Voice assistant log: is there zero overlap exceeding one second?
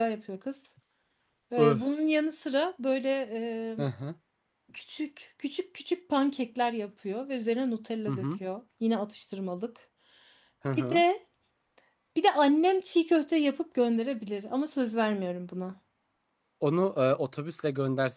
Yes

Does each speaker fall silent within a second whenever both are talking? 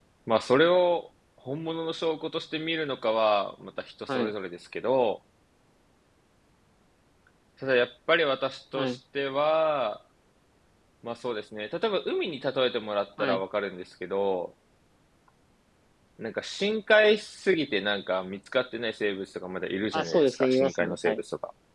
No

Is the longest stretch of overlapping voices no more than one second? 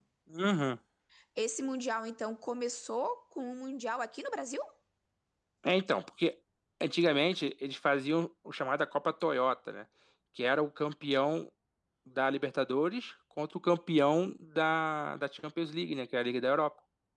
Yes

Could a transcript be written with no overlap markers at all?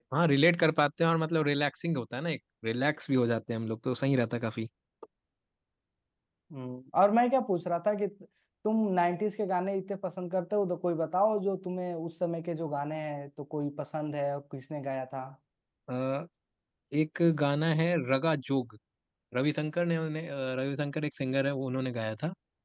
Yes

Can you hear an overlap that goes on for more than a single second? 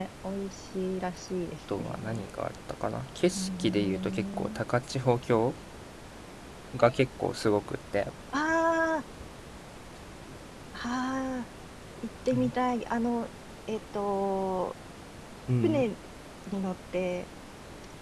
Yes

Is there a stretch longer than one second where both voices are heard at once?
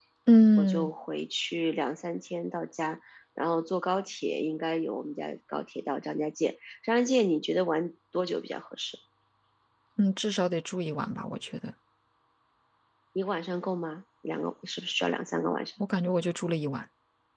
No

